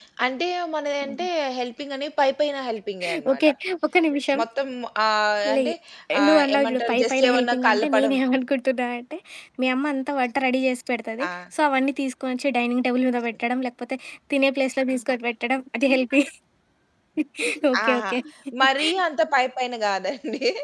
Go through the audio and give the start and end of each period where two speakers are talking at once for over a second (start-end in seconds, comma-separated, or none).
6.3-8.1